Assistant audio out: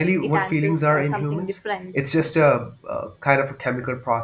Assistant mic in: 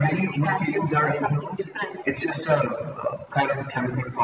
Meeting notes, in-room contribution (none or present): none